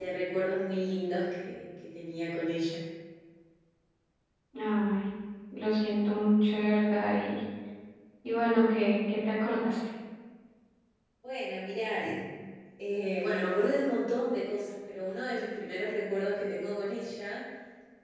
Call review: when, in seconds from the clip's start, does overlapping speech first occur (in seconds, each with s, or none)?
none